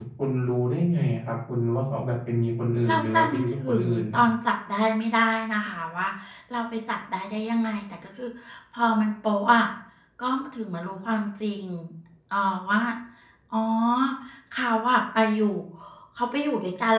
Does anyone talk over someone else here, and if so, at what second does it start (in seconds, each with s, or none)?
2.8 s